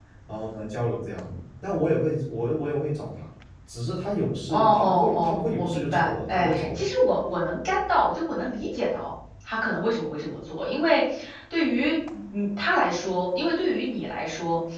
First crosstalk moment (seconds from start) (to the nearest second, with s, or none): 4 s